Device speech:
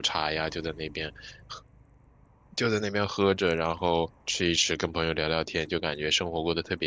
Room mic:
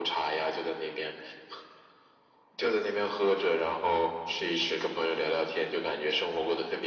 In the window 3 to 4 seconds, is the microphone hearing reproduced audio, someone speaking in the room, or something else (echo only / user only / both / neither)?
echo only